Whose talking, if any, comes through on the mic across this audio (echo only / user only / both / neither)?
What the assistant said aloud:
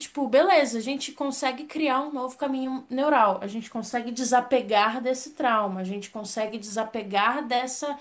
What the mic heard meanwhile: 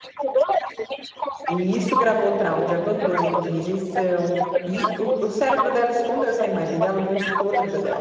both